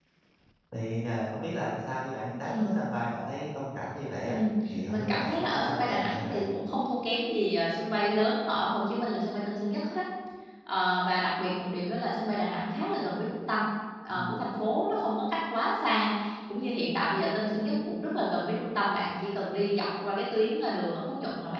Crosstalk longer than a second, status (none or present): present